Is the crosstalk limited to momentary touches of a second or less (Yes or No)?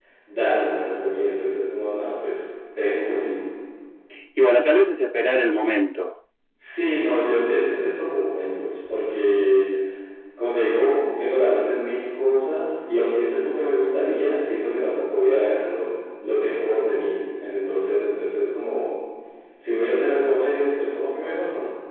Yes